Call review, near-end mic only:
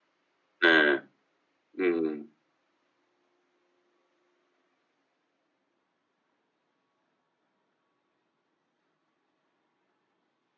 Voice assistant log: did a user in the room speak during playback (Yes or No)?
Yes